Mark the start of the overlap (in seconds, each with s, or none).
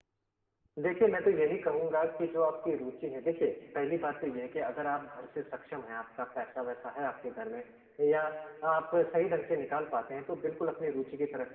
none